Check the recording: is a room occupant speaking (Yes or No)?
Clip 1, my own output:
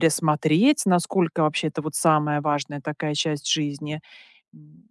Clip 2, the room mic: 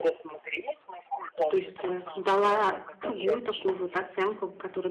Yes